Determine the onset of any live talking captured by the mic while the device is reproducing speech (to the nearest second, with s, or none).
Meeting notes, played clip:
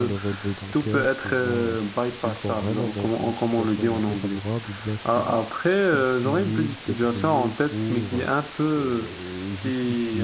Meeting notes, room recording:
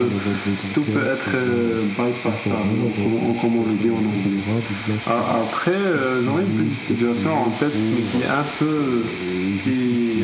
none